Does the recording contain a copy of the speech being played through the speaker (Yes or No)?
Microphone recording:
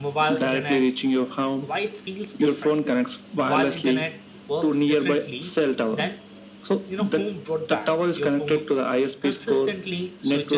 Yes